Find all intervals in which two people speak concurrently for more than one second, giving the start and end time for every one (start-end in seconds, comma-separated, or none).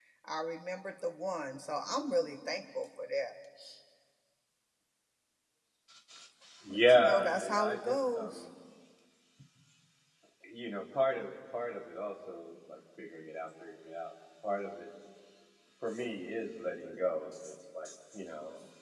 6.7-8.4